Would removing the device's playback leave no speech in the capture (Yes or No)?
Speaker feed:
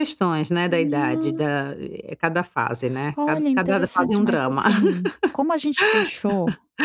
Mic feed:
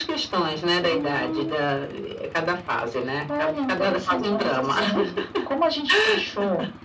Yes